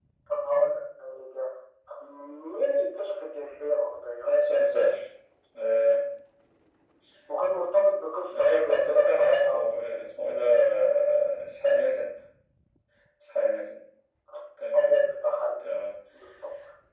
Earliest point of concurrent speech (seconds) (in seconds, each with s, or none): 8.3 s